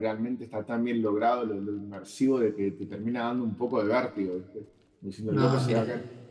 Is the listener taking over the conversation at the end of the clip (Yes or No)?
No